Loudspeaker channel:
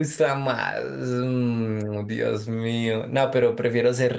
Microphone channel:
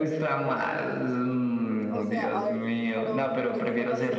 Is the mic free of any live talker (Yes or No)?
No